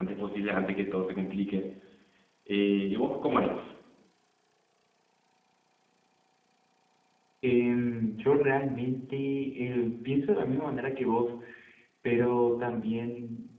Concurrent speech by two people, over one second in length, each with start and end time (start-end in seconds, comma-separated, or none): none